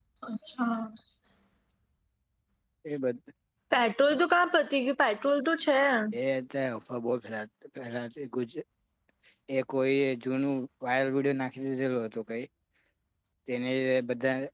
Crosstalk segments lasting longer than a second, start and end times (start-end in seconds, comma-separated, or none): none